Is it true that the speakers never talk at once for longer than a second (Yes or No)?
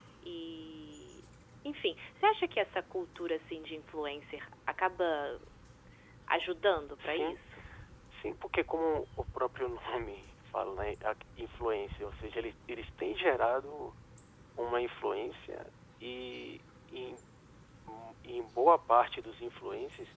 Yes